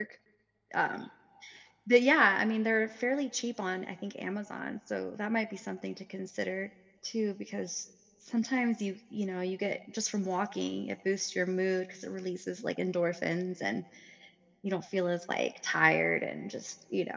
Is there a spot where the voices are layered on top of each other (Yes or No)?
No